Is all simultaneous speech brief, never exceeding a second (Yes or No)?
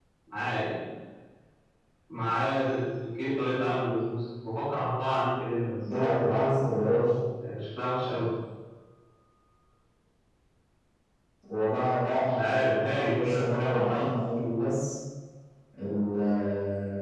No